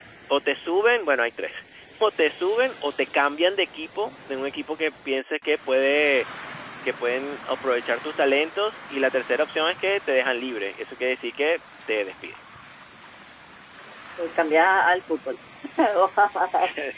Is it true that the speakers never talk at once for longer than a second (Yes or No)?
Yes